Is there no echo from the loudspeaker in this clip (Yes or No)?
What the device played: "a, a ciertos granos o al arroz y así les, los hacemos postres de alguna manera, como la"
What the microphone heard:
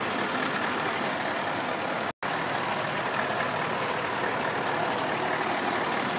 Yes